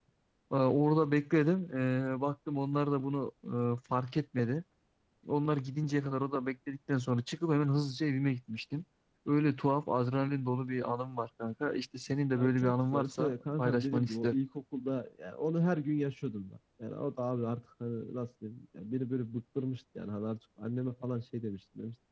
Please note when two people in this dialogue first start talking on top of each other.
12 s

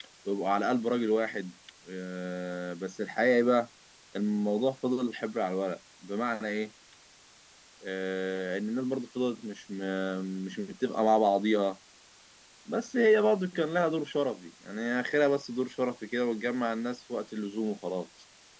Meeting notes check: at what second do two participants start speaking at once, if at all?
none

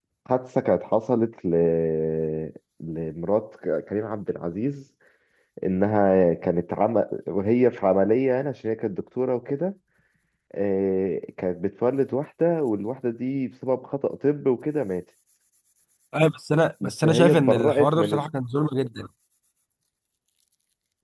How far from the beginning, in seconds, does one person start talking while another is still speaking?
17 s

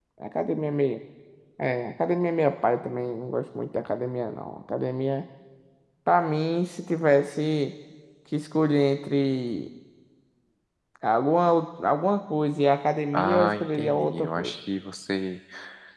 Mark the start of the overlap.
13 s

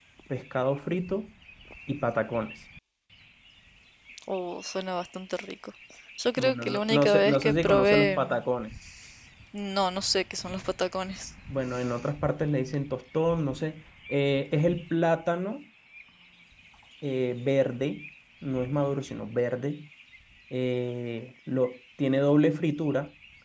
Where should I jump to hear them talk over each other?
6 s

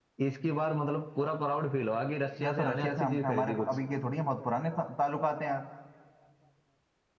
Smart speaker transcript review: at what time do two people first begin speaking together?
2 s

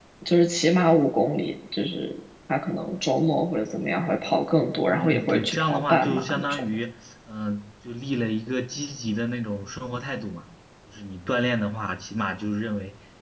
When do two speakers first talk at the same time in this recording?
5 s

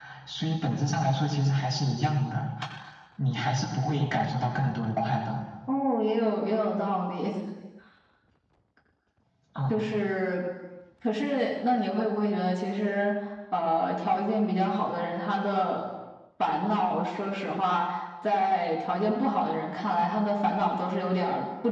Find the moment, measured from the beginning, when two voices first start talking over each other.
none

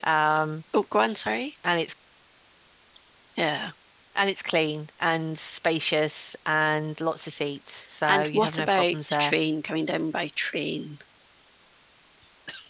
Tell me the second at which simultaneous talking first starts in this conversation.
8 s

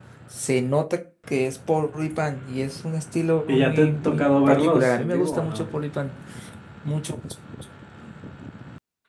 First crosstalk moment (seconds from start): 3 s

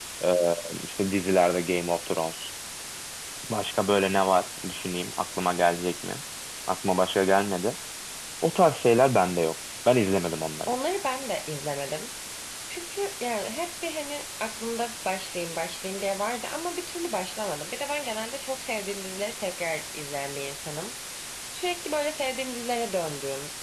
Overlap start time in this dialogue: none

